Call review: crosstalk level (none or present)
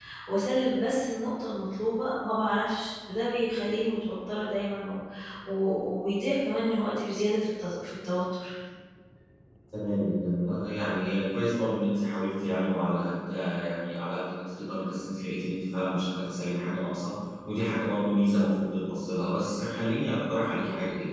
none